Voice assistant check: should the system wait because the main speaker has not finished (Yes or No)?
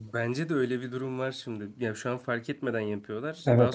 No